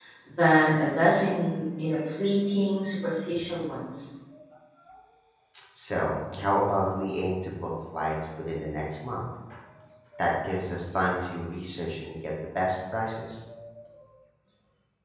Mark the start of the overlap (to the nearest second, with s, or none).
none